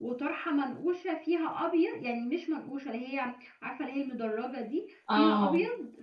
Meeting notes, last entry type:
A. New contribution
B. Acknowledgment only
B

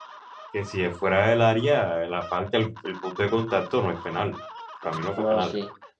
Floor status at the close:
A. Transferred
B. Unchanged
A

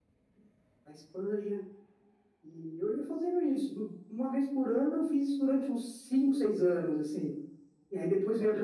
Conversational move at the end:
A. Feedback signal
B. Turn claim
A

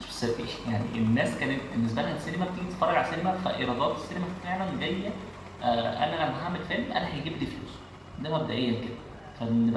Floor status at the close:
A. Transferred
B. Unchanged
B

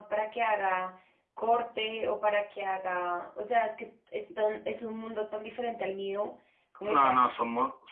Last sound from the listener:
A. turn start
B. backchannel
A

